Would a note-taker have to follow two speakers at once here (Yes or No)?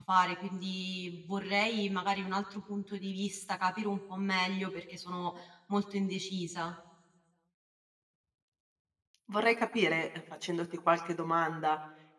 No